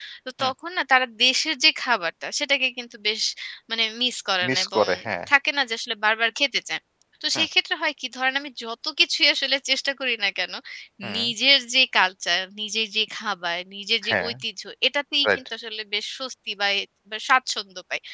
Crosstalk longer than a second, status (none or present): none